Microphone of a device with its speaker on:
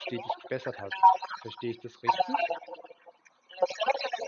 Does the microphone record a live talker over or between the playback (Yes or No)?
Yes